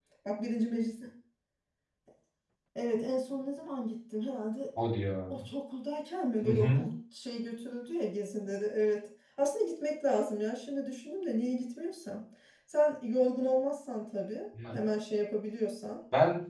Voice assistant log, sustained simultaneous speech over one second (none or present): none